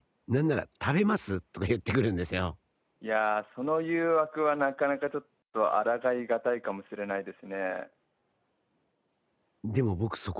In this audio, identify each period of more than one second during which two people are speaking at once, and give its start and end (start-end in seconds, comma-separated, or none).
none